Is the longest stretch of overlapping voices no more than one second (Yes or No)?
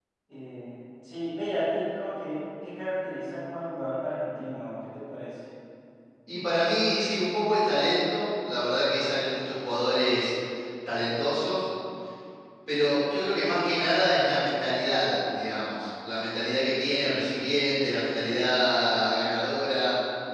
Yes